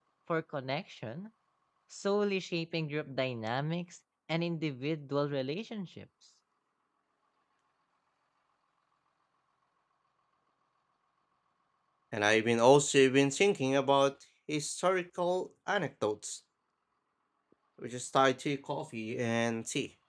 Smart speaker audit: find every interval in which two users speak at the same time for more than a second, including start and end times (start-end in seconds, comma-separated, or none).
none